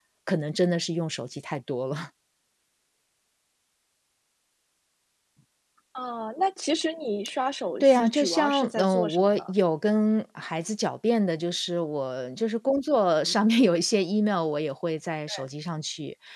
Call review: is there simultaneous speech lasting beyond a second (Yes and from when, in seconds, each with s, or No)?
Yes, from 7.8 s